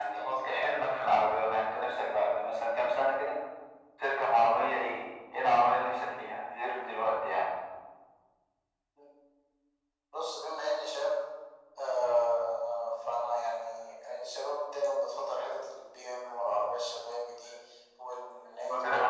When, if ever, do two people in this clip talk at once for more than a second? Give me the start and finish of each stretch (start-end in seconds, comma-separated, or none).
none